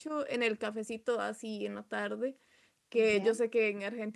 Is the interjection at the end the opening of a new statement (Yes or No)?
No